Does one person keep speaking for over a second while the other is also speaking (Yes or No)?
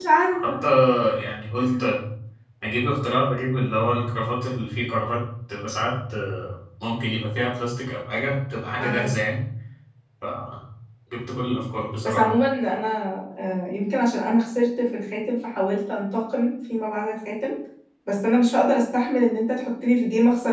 No